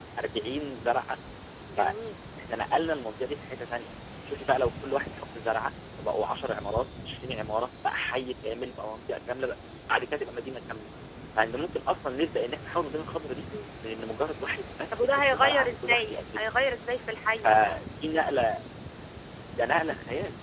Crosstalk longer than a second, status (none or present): present